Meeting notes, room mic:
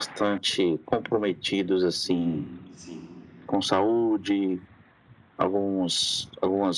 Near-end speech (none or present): present